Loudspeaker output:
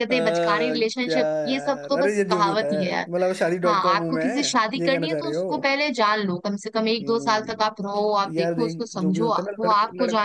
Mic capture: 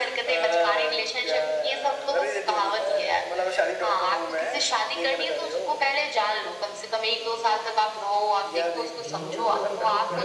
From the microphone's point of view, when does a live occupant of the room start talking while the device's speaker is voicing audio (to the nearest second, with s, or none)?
9 s